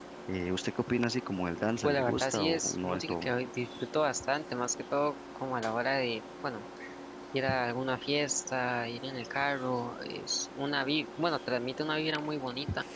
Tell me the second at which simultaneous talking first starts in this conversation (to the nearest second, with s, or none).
2 s